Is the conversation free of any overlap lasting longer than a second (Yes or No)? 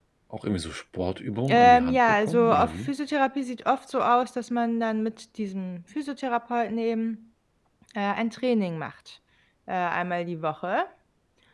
No